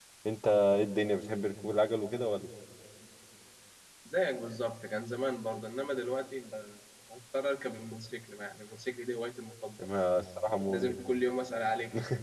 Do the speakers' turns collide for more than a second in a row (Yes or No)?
No